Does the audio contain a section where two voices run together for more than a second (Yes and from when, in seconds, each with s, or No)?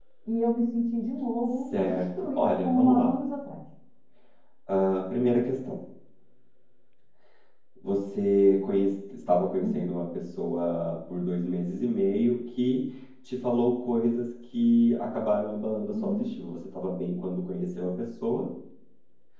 Yes, from 1.4 s